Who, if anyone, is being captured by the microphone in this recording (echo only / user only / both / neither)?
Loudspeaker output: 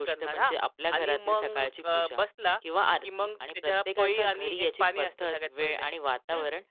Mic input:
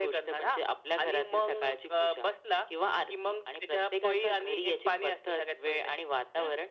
echo only